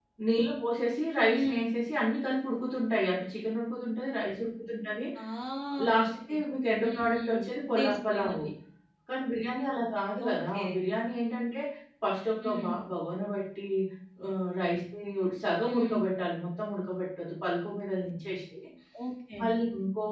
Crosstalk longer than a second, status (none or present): present